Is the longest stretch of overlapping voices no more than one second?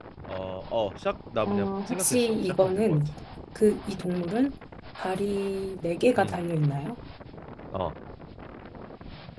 No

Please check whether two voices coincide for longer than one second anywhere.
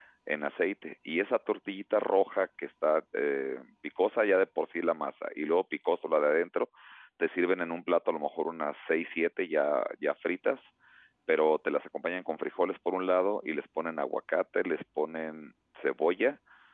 No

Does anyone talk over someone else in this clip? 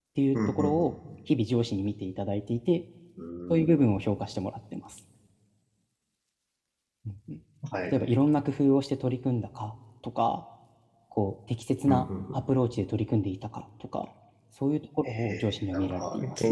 Yes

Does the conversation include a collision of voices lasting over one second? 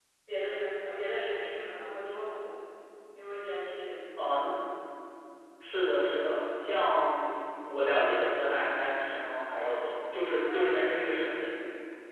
No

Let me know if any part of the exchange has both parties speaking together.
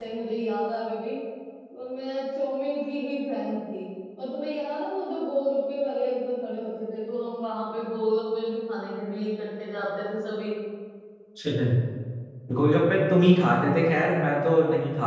No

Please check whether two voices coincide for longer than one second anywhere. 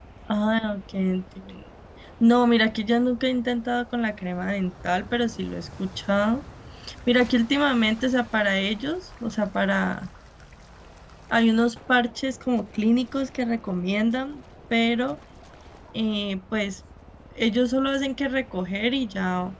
No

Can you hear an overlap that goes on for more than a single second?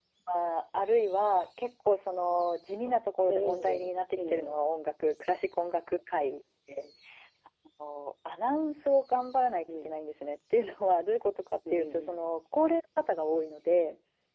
Yes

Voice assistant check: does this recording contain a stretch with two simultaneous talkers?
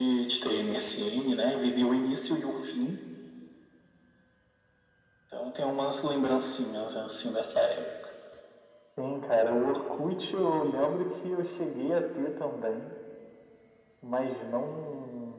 No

